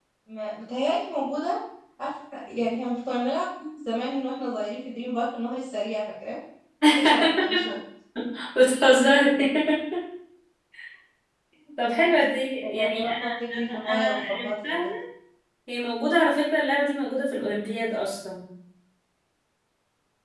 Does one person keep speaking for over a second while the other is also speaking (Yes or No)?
Yes